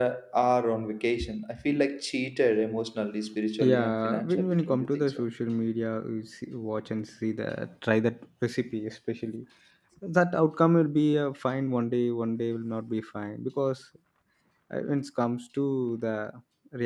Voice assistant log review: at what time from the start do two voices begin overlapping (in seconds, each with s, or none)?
3.6 s